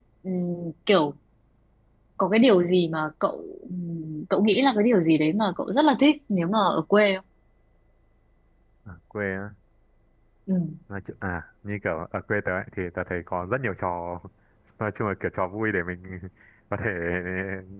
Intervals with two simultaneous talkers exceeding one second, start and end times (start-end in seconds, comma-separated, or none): none